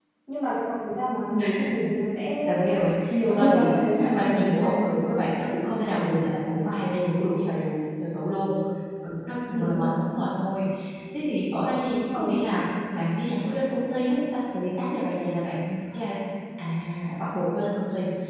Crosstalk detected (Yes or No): Yes